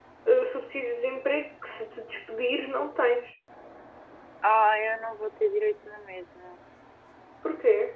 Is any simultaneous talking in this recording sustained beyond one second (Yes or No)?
No